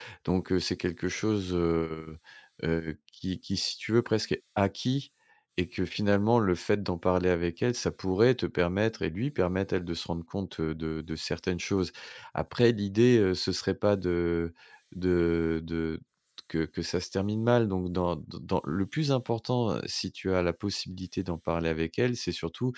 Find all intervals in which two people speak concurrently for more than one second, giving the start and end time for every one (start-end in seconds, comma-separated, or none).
none